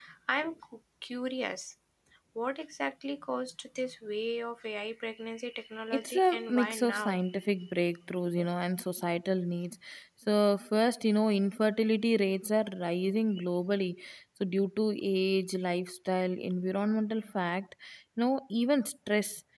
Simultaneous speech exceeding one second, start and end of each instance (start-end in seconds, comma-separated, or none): 5.9-7.2